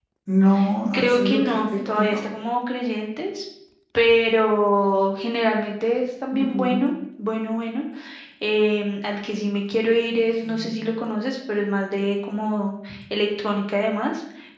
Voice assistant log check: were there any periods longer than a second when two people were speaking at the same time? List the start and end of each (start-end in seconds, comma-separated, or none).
0.9-2.2